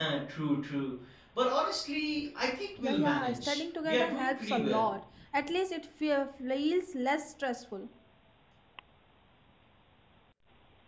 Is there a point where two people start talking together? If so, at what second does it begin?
2.8 s

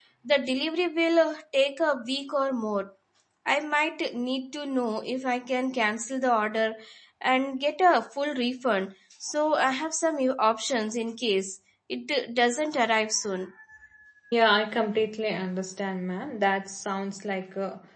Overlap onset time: none

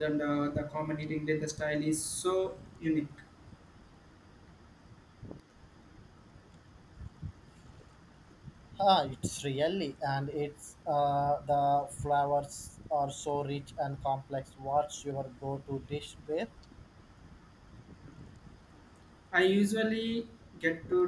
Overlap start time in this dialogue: none

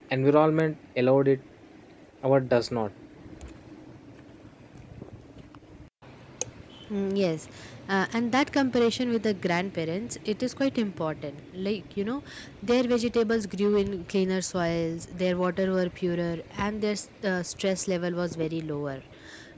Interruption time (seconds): none

